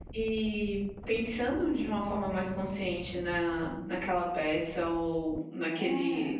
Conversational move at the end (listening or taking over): listening